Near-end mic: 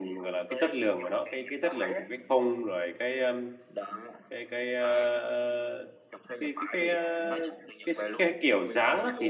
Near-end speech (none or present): present